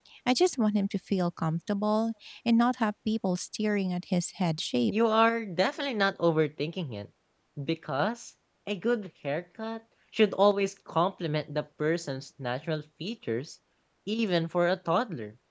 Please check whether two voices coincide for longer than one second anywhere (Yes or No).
No